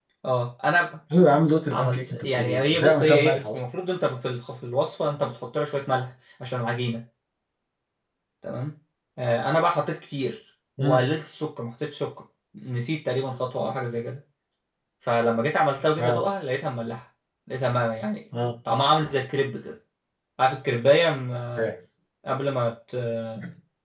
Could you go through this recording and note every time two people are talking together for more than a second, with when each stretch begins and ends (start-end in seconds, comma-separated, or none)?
1.7-3.6